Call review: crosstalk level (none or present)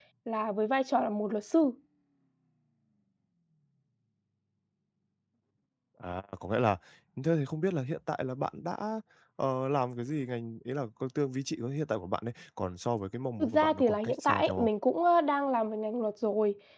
present